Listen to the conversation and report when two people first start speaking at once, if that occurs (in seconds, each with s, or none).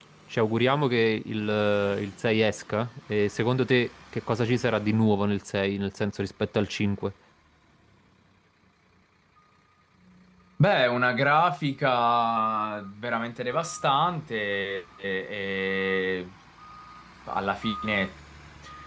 none